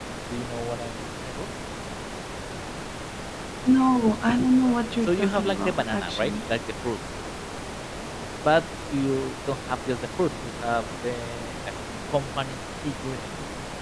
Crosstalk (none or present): present